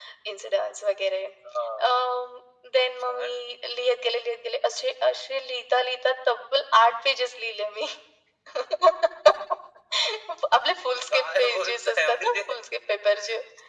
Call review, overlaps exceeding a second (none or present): present